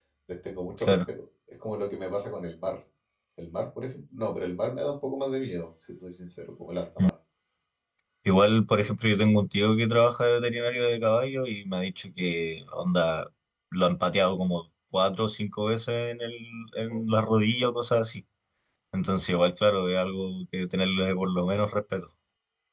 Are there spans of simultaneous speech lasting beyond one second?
No

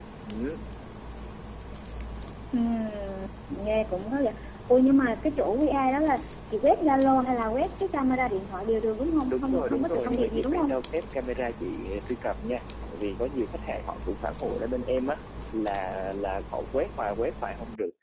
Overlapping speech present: Yes, from 9.3 s

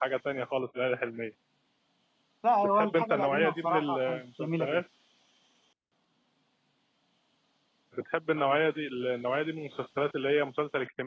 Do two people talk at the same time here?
Yes, from 2.8 s

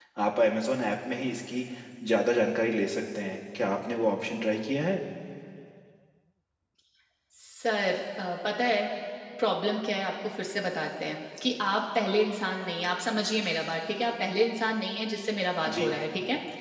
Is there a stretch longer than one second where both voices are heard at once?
No

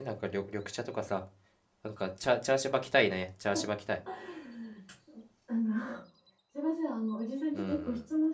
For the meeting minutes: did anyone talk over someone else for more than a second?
No

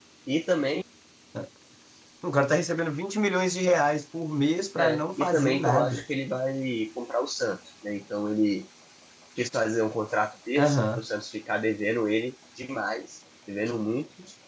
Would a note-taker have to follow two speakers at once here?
Yes, from 4.8 s

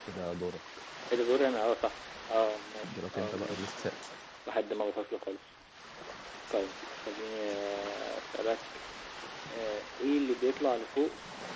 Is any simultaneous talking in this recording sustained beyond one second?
Yes, from 2.8 s

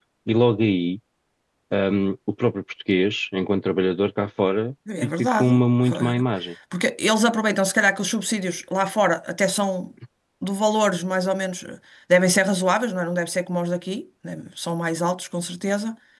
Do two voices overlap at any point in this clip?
Yes, from 4.9 s

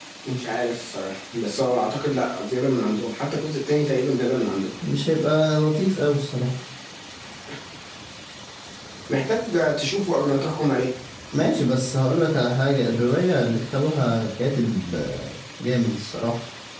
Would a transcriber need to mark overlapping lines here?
No

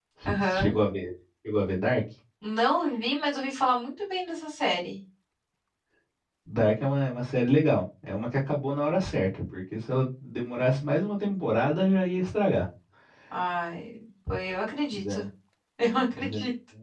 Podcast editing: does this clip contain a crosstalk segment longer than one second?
No

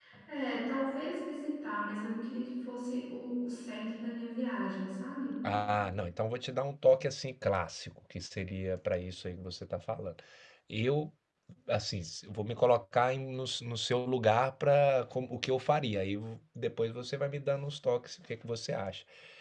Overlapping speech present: No

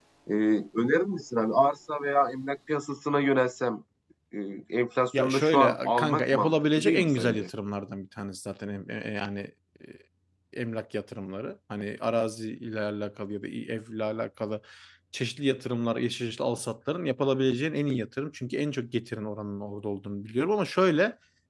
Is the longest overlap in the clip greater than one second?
Yes, from 5.2 s

